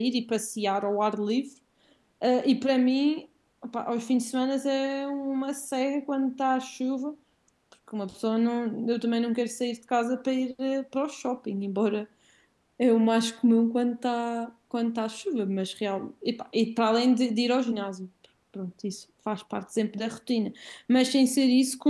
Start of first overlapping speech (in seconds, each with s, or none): none